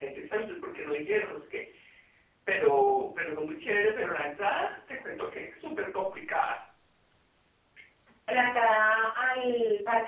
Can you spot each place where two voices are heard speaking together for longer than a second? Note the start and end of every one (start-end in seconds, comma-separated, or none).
none